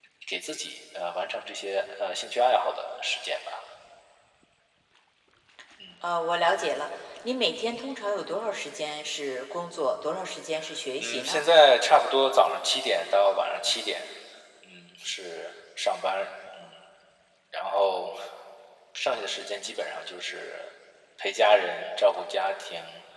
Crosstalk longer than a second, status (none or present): none